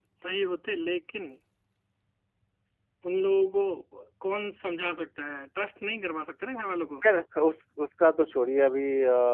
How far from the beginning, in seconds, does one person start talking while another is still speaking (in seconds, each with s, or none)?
none